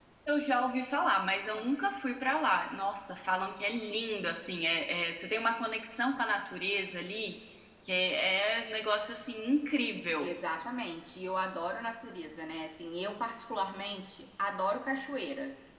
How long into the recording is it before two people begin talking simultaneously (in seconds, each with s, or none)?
none